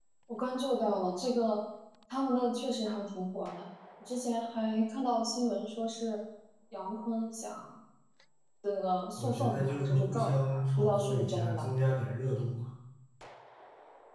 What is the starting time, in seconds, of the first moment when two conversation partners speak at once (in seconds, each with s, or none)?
9.2 s